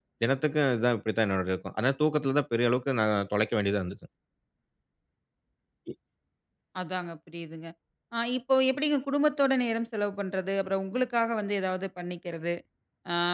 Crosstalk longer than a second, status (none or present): none